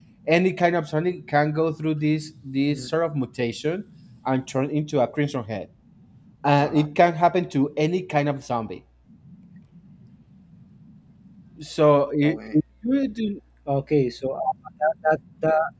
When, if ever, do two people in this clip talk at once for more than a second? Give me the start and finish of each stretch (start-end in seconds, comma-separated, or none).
none